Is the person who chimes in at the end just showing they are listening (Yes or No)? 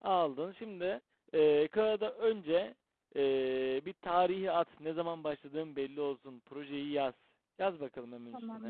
No